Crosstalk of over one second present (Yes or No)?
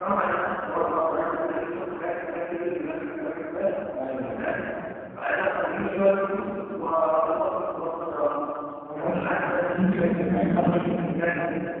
Yes